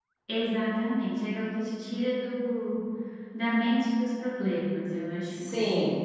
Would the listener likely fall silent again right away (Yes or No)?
No